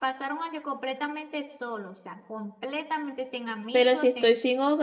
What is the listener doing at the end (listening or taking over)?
taking over